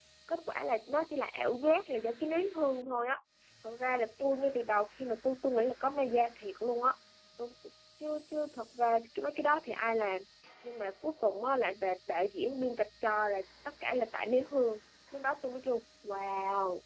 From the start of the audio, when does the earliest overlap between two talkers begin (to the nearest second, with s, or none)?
none